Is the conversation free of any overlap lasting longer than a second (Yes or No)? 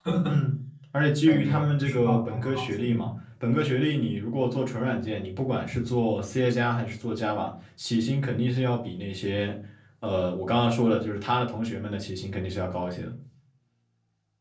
No